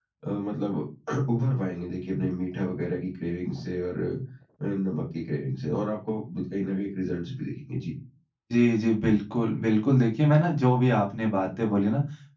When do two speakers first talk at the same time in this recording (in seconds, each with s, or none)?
none